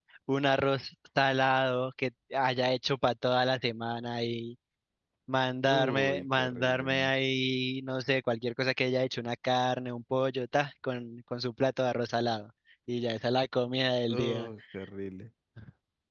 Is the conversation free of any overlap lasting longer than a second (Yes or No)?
No